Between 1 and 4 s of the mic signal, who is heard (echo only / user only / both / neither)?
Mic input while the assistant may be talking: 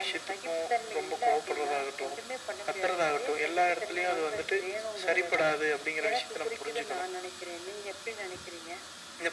echo only